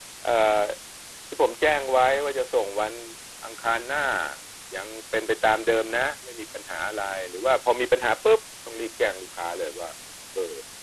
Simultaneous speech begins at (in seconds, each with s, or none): none